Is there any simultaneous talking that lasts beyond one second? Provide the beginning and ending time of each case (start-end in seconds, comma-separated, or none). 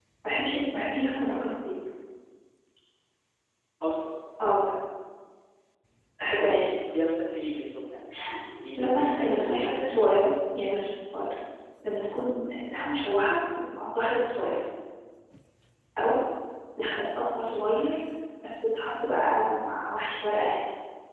8.8-10.2